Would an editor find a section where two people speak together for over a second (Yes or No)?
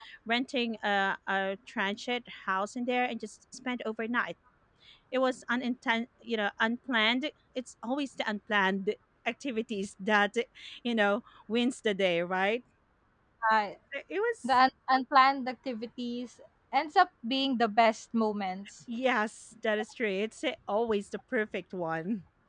No